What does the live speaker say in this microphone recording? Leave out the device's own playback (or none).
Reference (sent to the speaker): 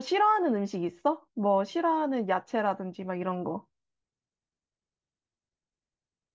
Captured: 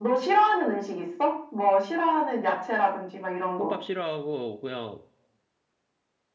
콩밥 싫어하고 그냥